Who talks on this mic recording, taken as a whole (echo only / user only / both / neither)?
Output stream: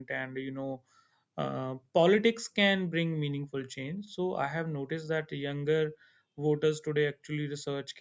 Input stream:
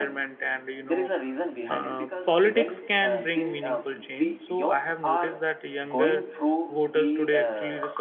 both